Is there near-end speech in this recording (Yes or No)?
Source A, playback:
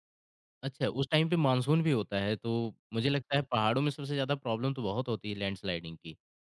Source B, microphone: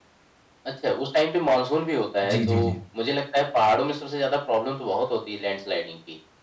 Yes